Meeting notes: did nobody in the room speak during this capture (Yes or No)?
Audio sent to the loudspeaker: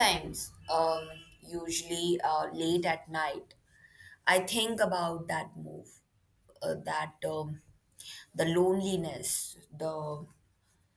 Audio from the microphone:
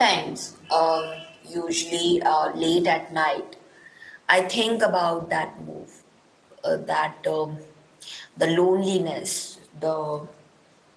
Yes